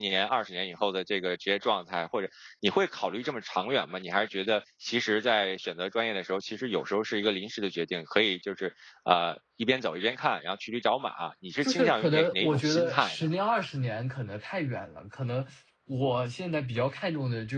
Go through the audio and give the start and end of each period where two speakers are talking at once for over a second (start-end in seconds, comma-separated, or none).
11.6-13.2